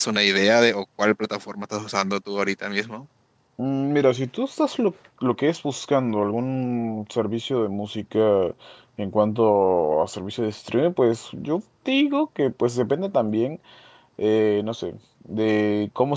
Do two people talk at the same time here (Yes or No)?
No